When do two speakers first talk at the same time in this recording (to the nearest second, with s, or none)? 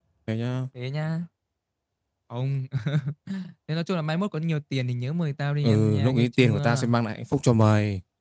6 s